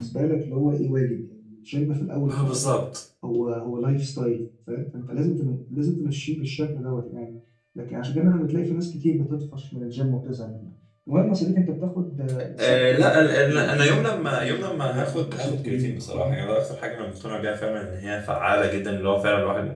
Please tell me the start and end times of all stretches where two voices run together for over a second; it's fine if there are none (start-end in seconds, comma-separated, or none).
12.6-16.4